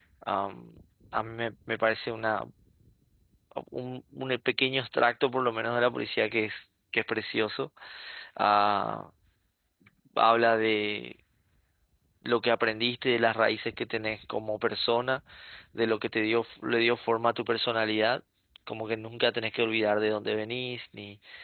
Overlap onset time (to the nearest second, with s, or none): none